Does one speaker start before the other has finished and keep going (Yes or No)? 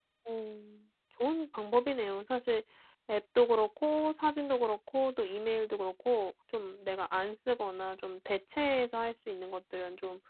No